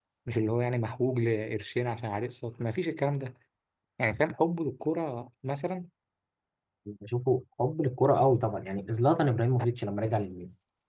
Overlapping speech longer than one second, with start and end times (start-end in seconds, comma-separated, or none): none